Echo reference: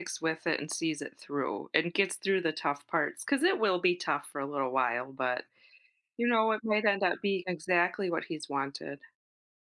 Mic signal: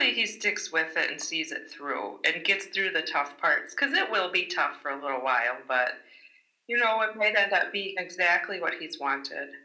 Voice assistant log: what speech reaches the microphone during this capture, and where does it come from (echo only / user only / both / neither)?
echo only